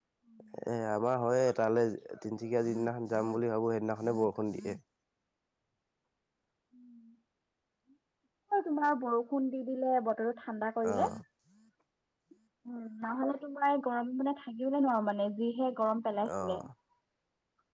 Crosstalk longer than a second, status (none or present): none